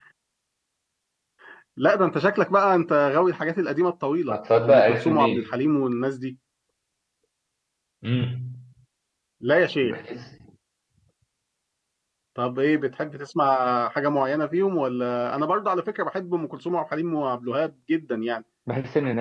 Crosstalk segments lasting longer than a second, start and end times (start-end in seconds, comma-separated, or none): 4.3-5.5